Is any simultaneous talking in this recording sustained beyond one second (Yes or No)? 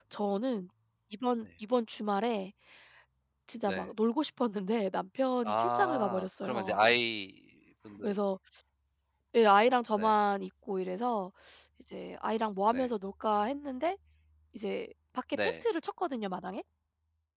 Yes